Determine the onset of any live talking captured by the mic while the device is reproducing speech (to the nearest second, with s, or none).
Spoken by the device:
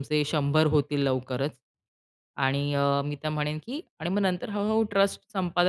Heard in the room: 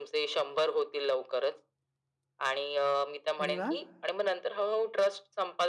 3 s